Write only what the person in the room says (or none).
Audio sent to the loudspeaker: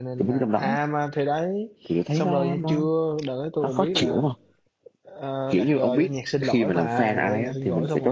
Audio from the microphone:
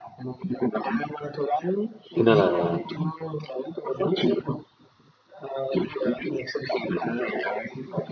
cho nên là